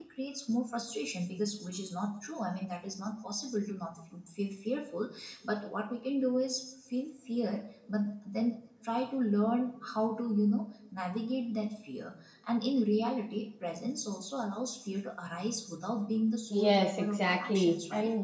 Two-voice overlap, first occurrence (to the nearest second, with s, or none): 17 s